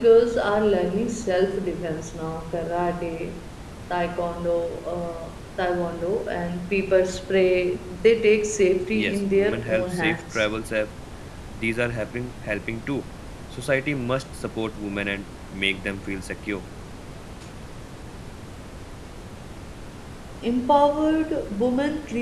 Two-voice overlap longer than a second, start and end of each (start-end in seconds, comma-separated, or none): 8.9-10.4